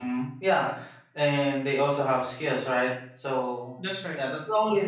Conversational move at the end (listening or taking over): listening